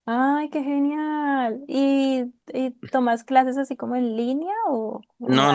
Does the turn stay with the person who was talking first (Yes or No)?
No